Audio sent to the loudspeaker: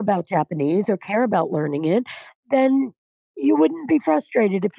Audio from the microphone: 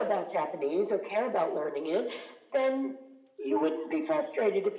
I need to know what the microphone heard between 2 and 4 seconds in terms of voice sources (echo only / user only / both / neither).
echo only